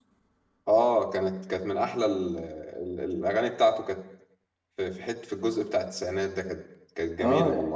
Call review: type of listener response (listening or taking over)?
taking over